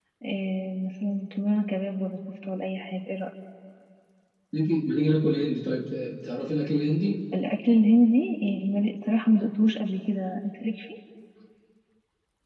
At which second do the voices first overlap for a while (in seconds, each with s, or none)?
none